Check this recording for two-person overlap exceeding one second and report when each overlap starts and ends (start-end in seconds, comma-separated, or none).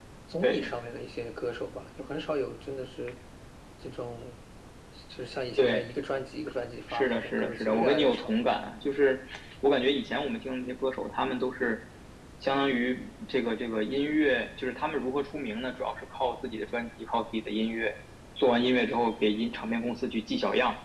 6.9-8.3